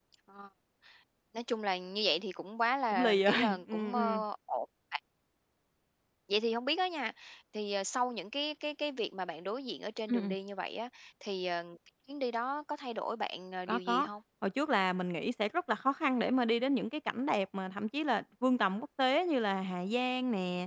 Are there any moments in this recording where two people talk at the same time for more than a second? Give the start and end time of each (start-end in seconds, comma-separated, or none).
2.9-4.2